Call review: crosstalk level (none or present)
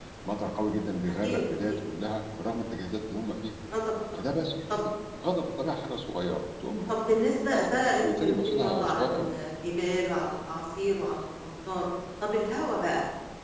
present